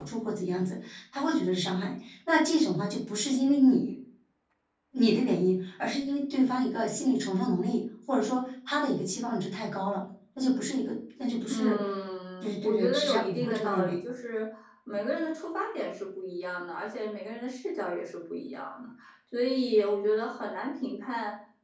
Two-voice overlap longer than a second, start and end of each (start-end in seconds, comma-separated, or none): 12.4-14.0